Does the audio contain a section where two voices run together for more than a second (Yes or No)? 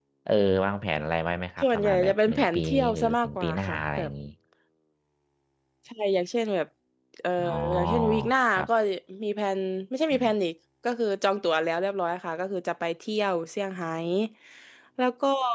Yes